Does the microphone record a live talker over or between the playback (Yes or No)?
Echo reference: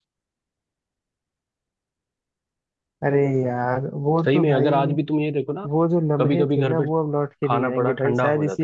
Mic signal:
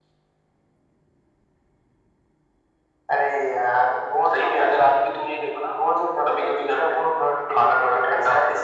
No